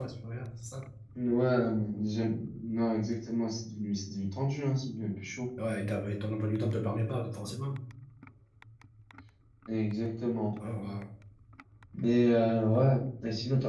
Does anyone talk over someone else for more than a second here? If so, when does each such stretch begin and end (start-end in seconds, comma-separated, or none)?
none